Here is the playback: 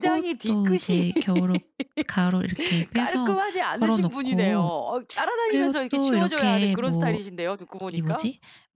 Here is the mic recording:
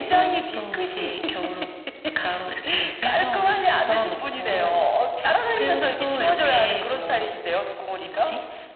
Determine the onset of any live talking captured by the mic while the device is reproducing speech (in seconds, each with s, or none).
none